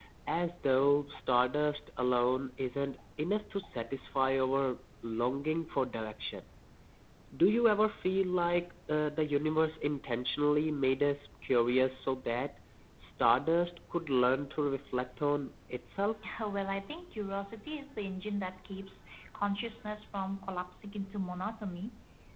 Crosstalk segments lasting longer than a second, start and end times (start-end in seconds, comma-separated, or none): none